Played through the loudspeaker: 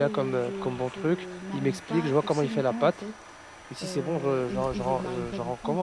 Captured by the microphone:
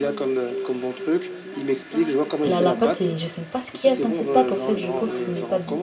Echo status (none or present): present